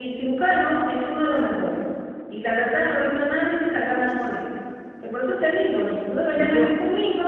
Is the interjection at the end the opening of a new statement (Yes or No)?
No